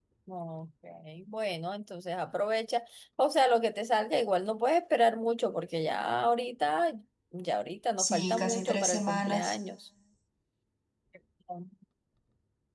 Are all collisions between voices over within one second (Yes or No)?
No